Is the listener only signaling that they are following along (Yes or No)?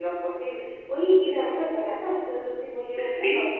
No